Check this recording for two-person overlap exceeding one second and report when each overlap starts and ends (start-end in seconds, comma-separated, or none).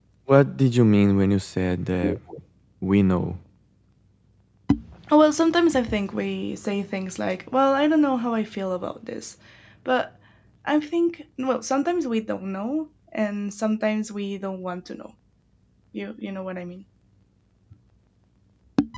none